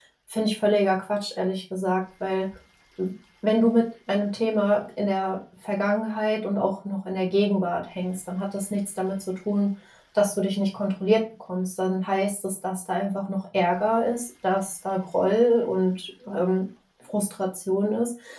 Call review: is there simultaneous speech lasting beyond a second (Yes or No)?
No